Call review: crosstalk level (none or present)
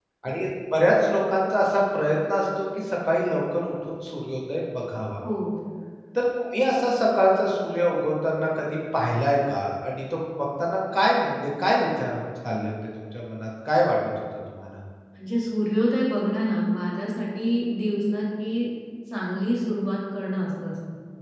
none